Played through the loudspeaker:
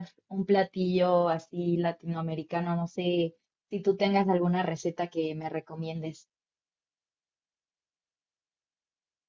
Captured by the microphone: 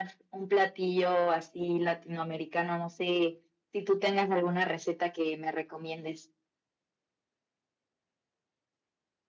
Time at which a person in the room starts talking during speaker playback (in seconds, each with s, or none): none